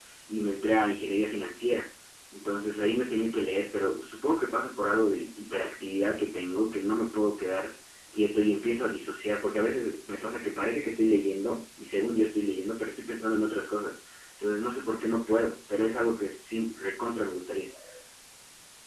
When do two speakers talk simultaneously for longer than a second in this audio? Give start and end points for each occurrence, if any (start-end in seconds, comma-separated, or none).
none